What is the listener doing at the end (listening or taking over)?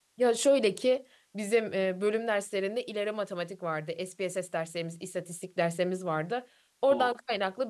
listening